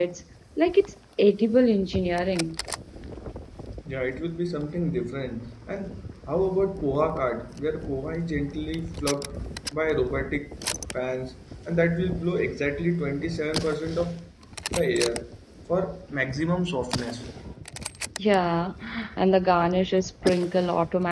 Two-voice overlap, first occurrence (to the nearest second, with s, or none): none